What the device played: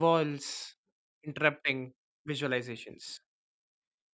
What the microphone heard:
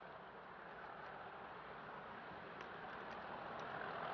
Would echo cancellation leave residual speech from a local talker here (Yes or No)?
No